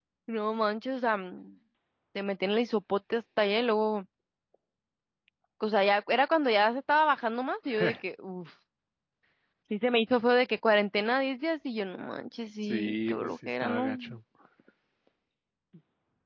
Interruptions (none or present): present